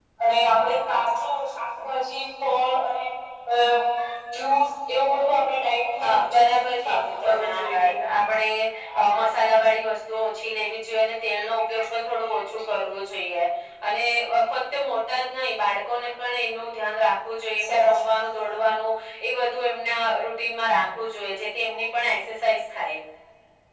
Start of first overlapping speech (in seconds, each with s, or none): 6.0 s